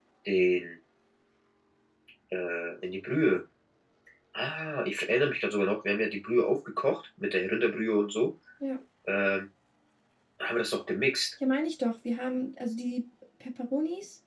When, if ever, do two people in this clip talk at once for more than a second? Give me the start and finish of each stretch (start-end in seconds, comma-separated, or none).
none